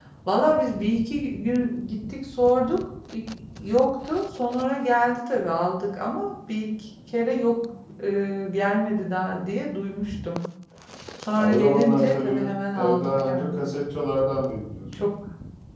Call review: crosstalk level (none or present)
present